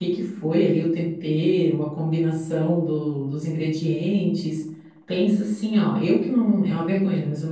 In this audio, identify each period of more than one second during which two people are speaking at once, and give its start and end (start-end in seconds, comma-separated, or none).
none